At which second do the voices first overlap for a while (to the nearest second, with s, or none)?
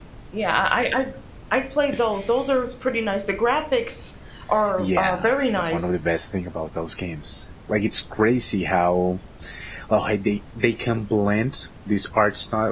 5 s